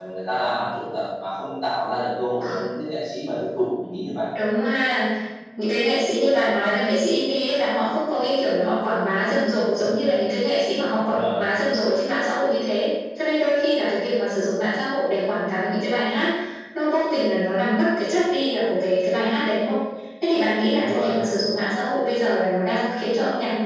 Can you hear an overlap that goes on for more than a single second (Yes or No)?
No